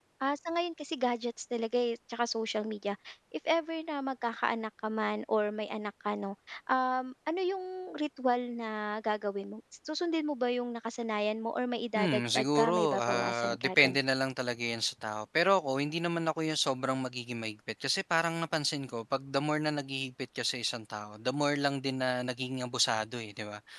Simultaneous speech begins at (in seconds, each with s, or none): 11.9 s